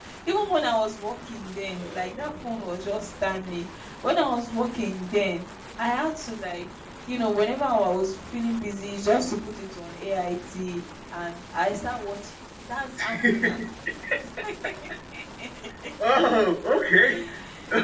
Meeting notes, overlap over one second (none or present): present